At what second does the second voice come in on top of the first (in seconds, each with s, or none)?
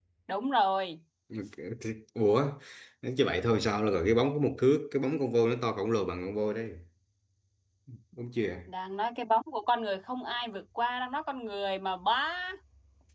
none